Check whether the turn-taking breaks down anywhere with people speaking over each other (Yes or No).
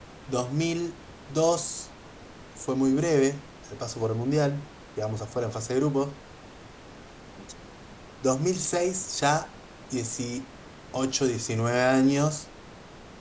No